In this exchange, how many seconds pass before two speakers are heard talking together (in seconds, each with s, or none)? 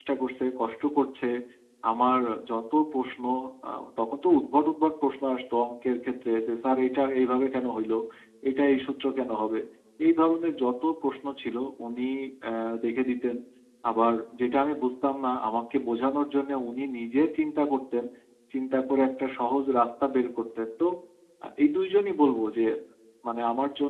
none